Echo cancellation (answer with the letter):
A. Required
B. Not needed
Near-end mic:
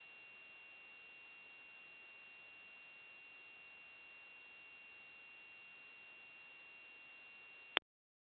B